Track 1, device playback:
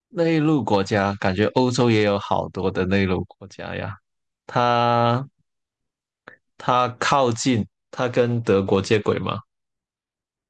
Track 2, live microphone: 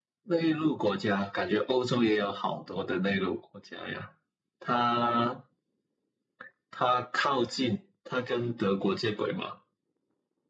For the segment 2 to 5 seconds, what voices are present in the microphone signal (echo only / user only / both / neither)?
echo only